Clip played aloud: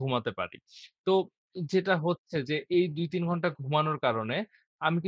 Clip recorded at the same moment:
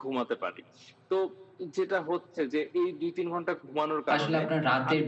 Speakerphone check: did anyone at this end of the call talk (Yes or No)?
Yes